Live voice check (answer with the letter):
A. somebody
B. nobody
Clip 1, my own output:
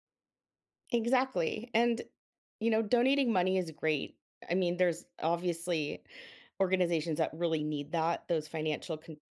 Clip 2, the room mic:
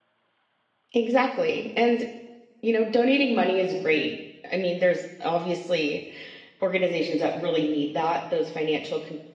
B